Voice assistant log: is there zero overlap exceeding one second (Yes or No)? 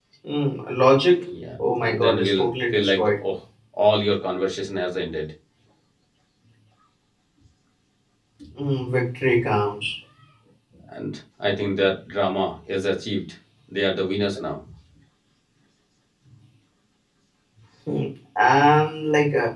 No